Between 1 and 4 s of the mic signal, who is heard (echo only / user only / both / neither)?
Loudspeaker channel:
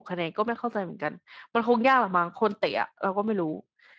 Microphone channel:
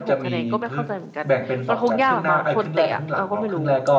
both